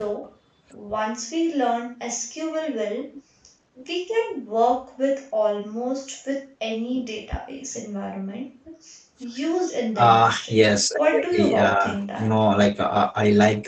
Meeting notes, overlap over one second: present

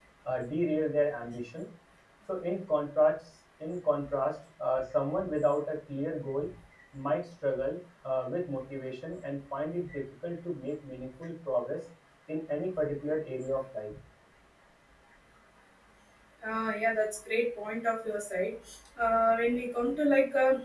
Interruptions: none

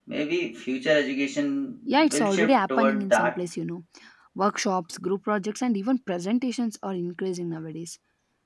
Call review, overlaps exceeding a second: present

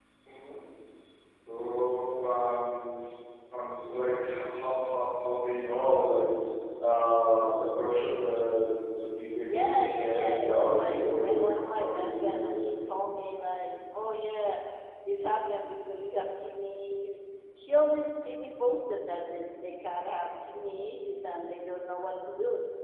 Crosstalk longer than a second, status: present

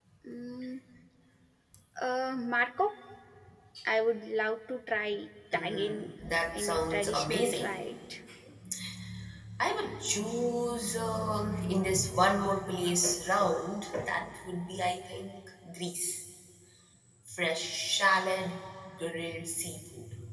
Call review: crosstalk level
present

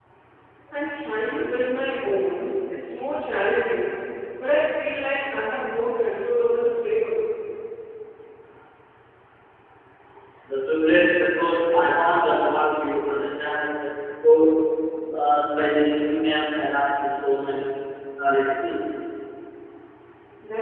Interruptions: none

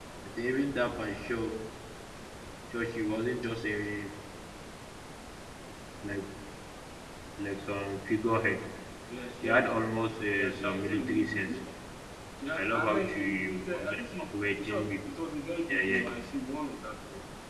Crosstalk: present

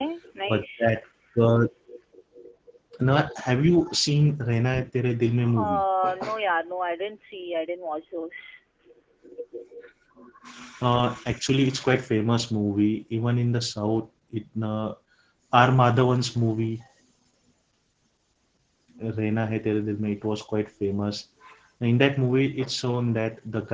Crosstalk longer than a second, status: none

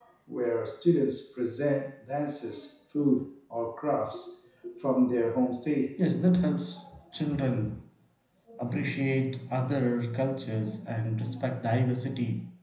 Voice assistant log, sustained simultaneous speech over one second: none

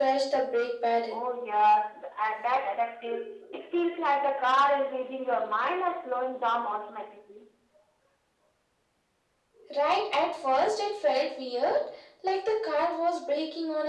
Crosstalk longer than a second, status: none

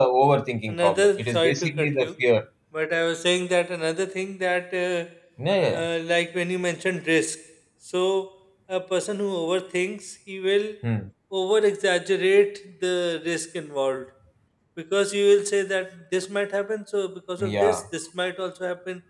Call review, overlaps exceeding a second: present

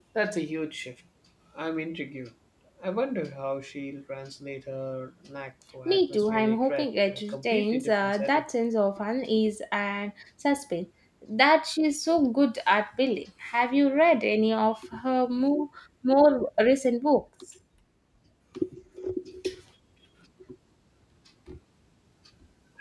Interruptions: present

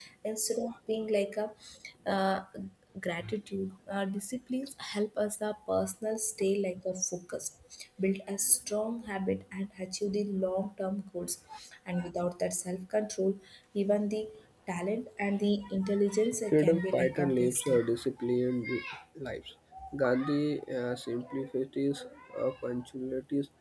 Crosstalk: present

